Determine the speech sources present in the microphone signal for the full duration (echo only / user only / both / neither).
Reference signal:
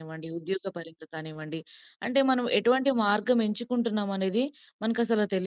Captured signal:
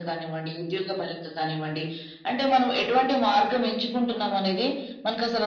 echo only